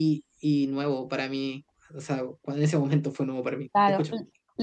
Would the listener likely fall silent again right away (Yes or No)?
No